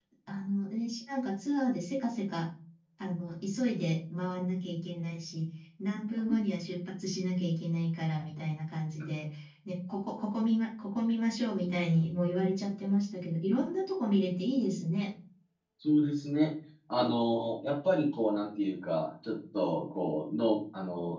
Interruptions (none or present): none